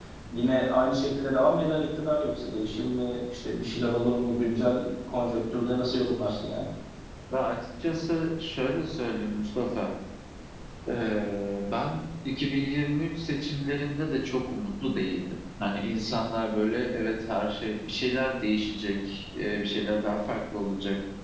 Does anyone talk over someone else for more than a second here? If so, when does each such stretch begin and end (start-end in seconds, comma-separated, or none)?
none